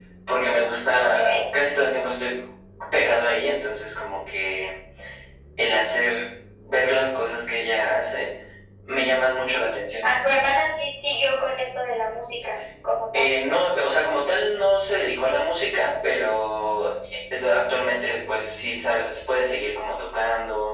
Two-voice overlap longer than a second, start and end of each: none

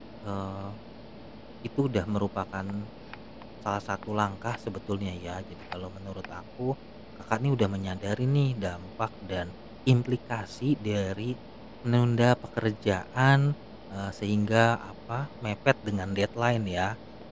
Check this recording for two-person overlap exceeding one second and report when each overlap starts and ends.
none

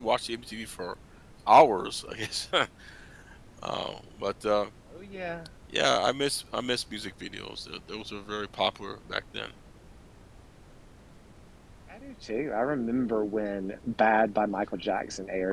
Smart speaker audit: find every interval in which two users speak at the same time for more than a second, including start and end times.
none

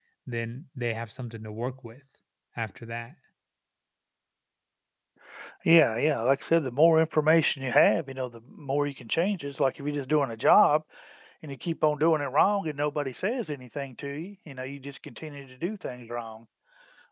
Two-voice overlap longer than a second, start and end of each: none

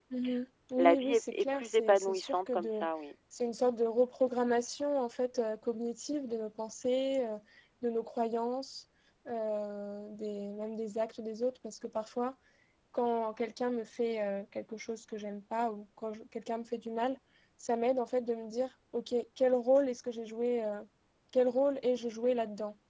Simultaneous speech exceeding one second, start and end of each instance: 0.8-2.9

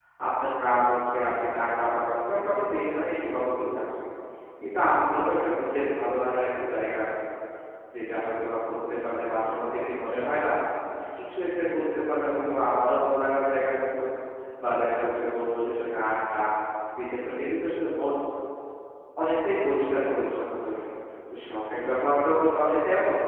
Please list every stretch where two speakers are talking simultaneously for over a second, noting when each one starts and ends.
none

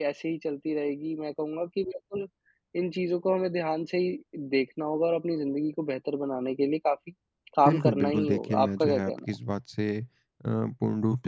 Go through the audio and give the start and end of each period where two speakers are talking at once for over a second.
7.7-9.3

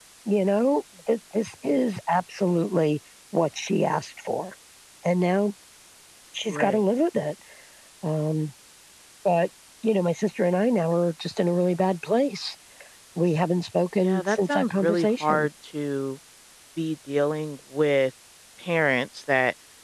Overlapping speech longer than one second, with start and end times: 14.0-15.5

